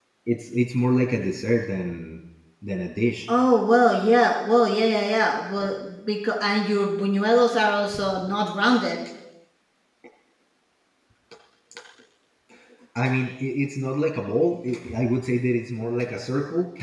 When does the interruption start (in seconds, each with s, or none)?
none